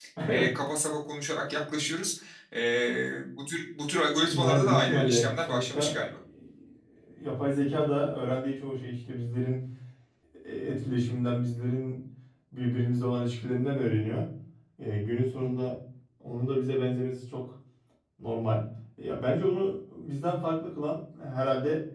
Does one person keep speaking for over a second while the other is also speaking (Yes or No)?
Yes